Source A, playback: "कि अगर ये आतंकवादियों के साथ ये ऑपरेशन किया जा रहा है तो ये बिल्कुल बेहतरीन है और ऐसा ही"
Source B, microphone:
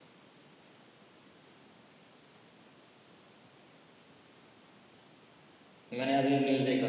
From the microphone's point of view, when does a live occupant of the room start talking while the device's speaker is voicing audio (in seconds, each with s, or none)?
5.9 s